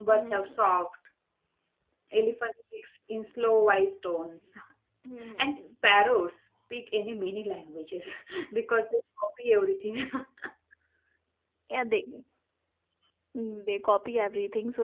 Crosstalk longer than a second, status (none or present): none